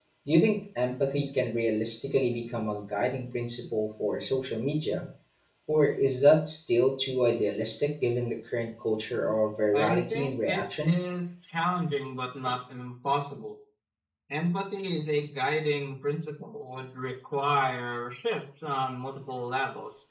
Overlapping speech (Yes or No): Yes